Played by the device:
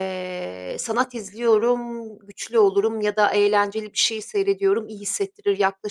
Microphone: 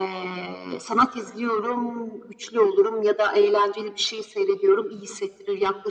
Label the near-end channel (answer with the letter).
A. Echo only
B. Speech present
A